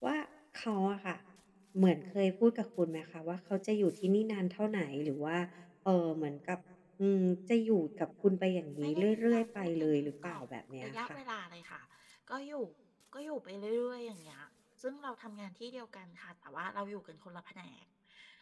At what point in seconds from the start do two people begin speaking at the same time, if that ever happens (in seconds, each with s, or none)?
8.8 s